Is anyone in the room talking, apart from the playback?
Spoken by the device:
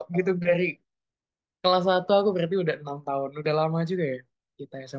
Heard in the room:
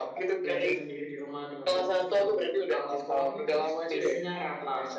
Yes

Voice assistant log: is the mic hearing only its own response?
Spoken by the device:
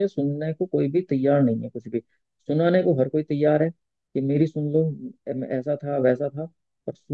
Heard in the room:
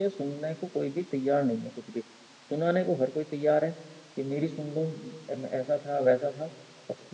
Yes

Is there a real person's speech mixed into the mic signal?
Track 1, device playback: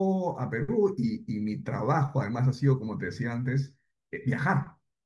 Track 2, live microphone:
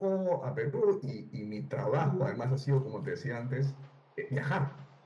Yes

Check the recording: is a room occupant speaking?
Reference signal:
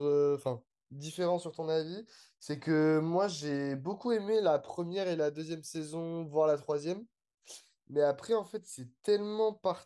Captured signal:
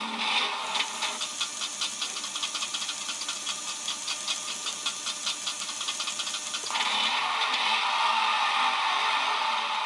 No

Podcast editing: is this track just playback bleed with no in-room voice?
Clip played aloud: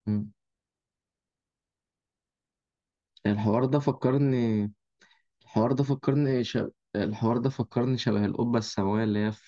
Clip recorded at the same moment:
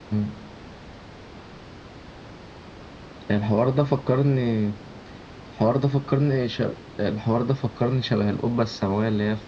Yes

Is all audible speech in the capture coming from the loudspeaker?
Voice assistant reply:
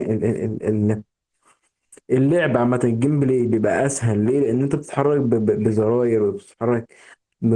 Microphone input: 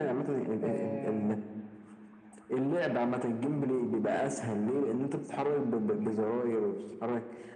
No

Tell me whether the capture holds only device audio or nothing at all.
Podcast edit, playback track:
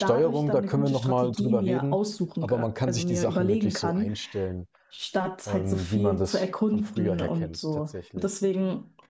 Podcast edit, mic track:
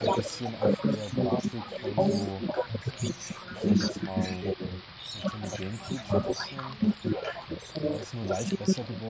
No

